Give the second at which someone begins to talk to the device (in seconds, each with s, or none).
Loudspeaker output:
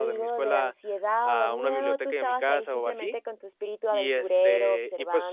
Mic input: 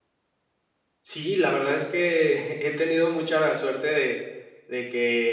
1.0 s